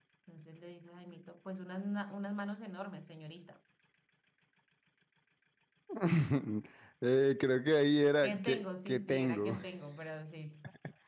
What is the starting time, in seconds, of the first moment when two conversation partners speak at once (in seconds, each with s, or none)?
8.2 s